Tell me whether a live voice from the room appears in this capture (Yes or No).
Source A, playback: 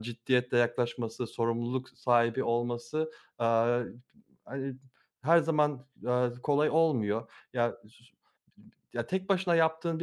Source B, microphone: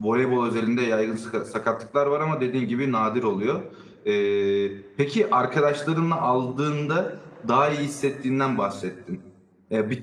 Yes